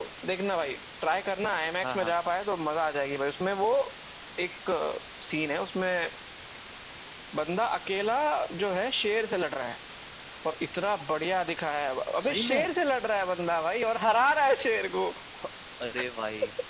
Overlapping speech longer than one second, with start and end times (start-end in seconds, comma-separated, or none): none